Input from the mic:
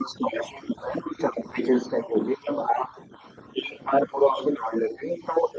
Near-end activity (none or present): none